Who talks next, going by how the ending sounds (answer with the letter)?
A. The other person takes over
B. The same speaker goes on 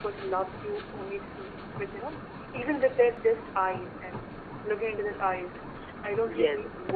B